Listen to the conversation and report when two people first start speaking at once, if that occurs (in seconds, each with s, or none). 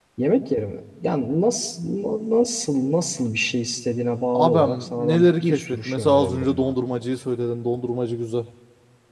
4.3 s